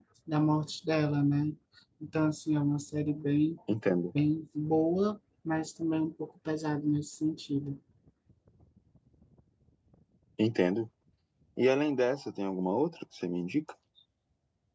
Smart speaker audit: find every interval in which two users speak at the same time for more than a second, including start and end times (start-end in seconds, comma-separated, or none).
none